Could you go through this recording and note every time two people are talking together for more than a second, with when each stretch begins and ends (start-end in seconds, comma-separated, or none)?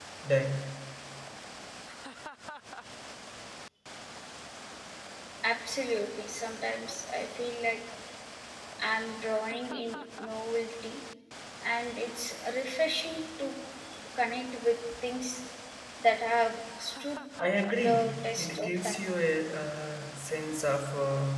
17.8-19.0